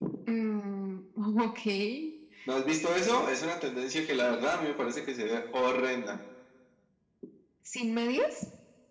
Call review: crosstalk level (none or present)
none